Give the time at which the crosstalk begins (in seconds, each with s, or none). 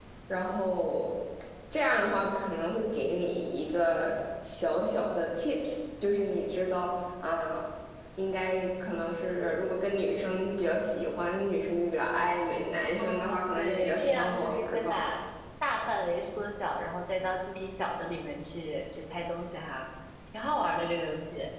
12.9 s